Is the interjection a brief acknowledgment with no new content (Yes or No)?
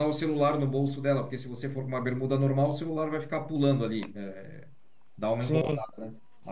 Yes